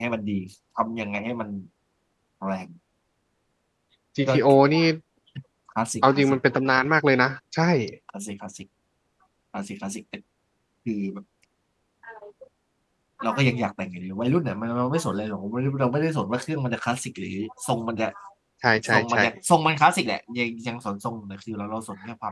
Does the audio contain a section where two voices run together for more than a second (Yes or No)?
No